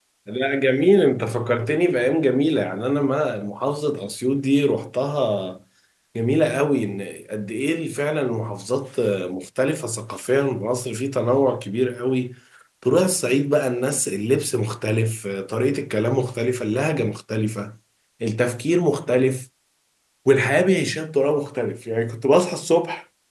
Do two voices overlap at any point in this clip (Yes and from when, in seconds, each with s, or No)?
No